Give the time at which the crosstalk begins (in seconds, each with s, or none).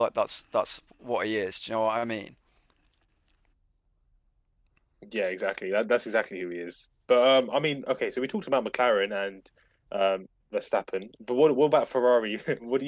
none